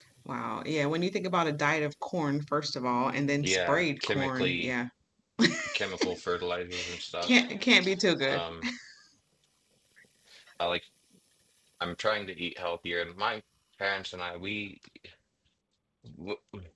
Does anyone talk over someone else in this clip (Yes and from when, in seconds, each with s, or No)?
Yes, from 3.4 s